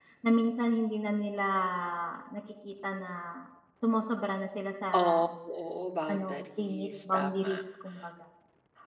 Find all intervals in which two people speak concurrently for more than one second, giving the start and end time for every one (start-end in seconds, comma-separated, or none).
6.1-7.5